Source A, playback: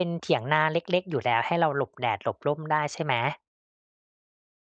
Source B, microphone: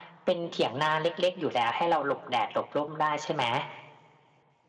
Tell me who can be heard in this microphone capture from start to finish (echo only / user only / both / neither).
echo only